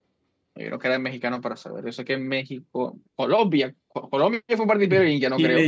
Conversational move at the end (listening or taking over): taking over